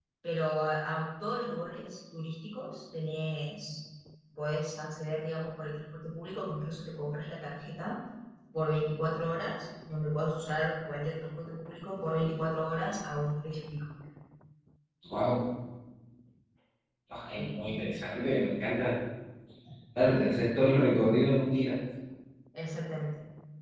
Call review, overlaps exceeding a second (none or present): none